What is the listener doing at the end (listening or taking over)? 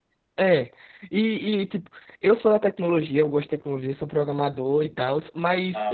listening